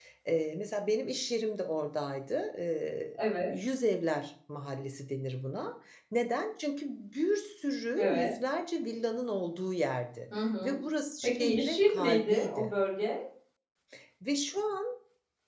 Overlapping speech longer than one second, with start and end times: 11.2-12.7

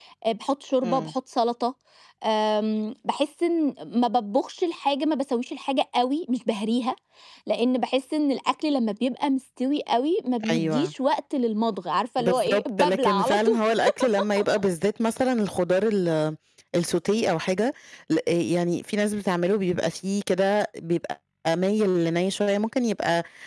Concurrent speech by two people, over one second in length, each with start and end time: 12.2-13.6

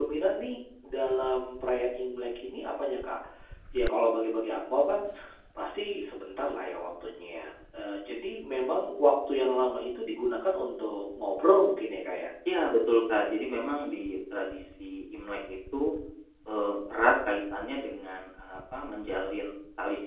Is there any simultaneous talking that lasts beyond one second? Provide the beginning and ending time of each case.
none

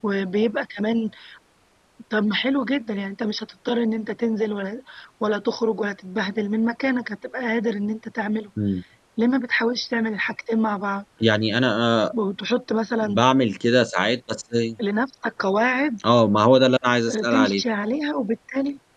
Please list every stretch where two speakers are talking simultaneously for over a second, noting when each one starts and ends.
none

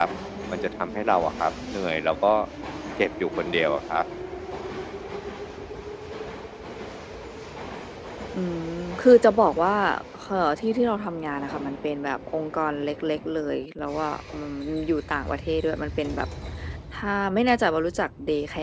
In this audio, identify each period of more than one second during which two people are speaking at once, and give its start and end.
none

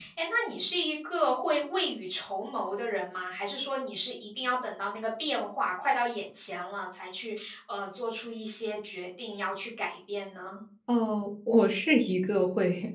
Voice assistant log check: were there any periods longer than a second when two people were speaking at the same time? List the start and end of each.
none

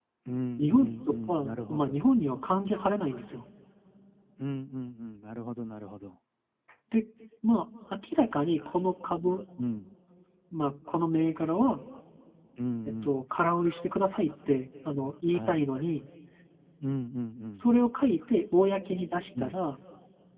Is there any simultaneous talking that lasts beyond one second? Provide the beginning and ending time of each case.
0.6-2.0

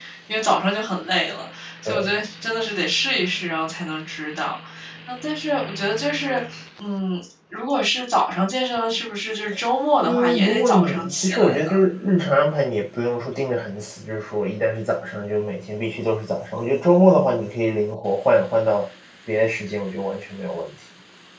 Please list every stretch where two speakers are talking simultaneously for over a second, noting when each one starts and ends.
10.0-11.7

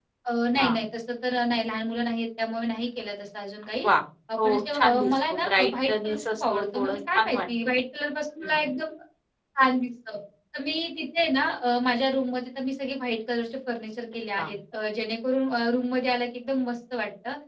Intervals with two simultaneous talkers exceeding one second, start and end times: 4.4-7.7

